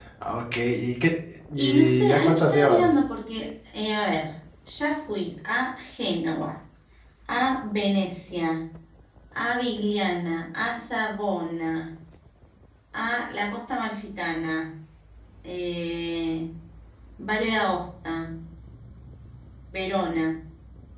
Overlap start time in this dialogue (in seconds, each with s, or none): 1.6 s